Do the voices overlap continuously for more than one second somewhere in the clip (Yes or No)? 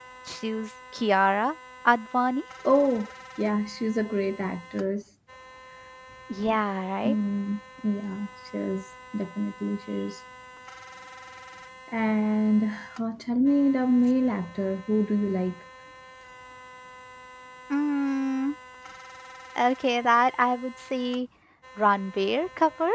No